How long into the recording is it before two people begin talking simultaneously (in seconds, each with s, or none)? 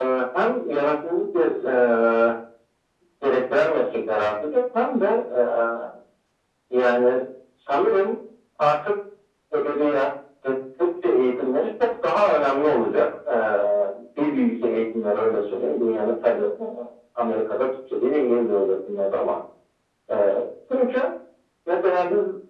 none